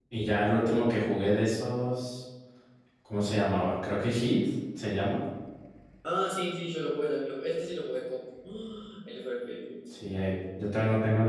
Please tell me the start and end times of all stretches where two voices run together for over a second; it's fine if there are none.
none

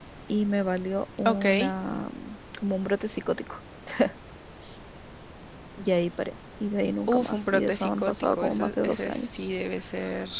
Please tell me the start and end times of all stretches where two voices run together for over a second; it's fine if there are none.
7.1-9.3

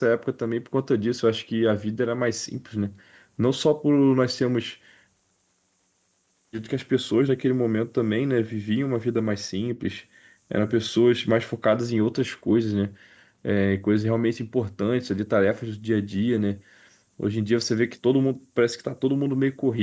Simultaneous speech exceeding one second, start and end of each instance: none

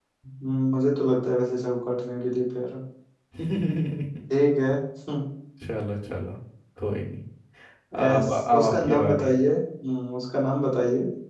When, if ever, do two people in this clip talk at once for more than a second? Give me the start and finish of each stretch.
8.0-9.3

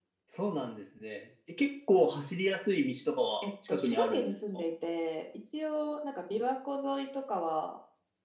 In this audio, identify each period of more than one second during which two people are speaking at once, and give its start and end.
3.4-4.6

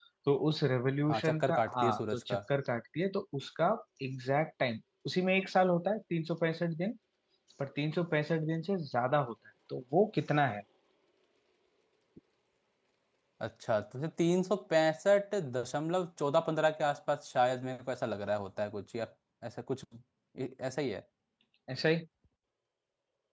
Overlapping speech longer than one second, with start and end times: 1.1-2.4

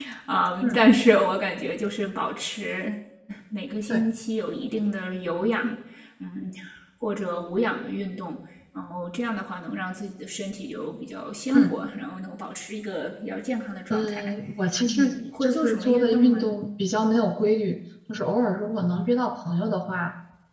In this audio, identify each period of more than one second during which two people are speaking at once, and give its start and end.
14.8-16.5

